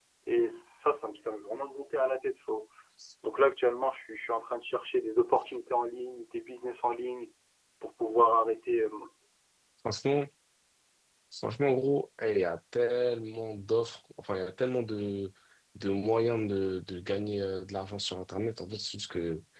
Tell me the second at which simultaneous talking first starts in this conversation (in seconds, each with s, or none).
none